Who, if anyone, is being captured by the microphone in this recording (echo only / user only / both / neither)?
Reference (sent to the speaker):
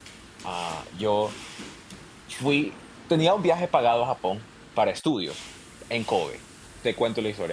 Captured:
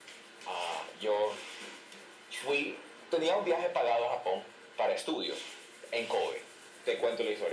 echo only